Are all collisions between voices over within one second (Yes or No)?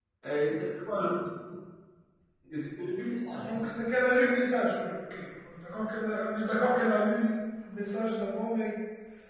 Yes